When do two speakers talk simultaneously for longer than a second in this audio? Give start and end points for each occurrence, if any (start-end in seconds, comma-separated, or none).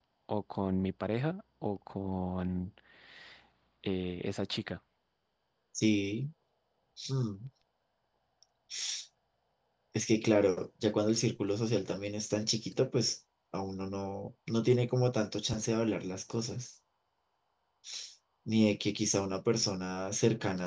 none